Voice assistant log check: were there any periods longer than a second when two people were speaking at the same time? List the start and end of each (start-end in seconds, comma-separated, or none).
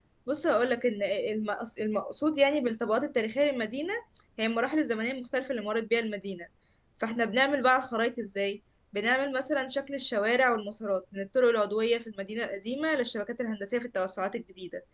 none